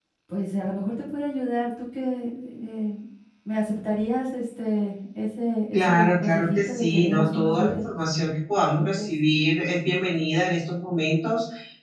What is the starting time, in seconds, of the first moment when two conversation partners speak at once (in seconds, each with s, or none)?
5.7 s